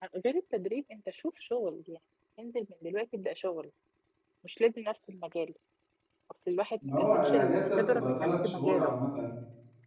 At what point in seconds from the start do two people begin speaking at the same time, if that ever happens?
7 s

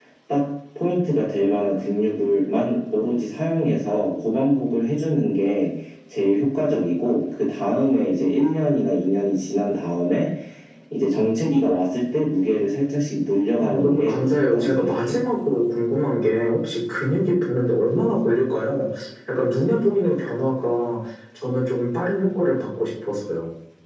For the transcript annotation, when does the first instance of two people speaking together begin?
14 s

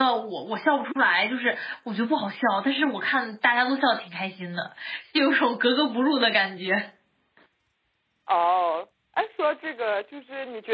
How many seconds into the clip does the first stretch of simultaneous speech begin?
none

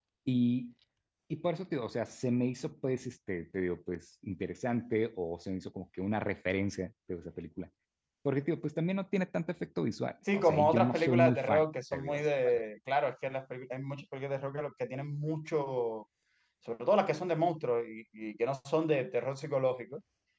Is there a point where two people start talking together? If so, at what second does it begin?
10 s

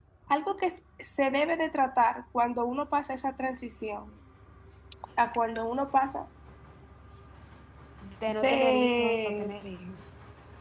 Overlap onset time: 8 s

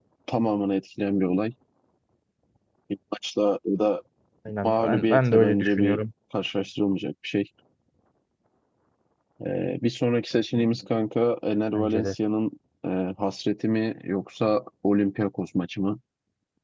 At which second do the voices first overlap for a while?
5 s

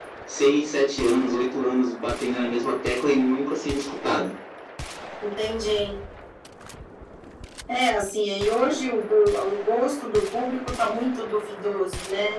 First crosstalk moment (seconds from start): none

